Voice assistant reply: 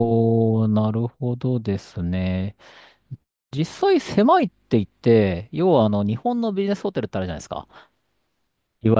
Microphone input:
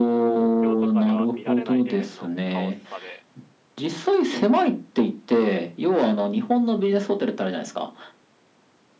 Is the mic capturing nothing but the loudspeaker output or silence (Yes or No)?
No